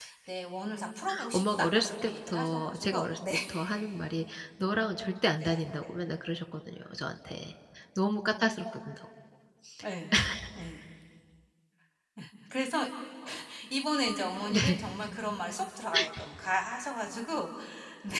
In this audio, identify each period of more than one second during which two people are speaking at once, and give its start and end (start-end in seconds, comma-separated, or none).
1.3-3.3